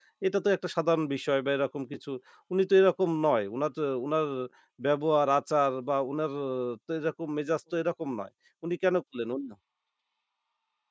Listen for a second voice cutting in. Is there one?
No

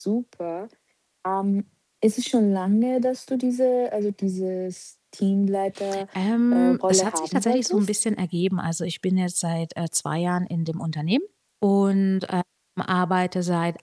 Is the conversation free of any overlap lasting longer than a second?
No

